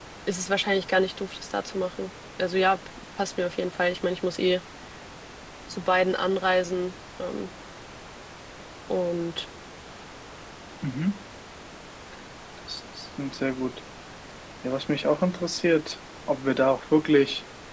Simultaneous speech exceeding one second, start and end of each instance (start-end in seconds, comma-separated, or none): none